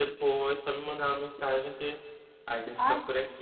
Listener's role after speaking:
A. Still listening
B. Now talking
B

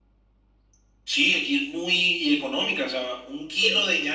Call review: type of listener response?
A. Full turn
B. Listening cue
B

